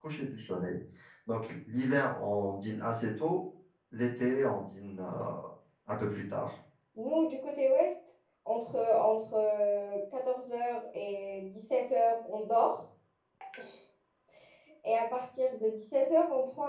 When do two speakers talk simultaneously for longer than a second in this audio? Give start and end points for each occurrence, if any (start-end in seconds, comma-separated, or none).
none